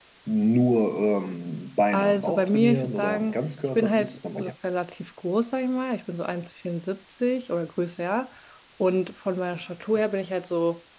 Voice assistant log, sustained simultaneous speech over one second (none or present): present